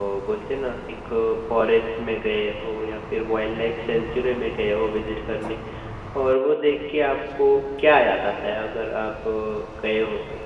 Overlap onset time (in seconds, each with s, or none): none